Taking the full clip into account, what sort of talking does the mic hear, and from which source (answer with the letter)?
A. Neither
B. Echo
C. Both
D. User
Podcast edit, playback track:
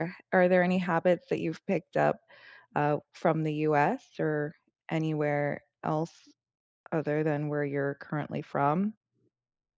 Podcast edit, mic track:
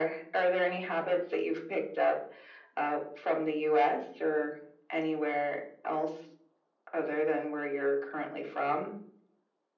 B